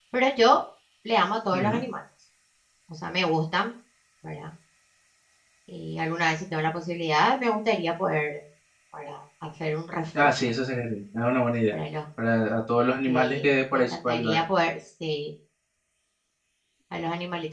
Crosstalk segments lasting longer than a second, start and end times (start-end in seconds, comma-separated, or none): 13.1-14.4